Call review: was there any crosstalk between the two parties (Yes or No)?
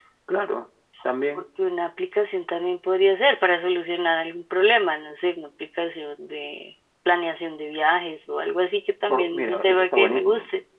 Yes